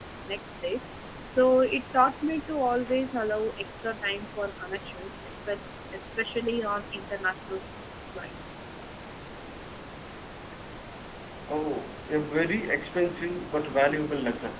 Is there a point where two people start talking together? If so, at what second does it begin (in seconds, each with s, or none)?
none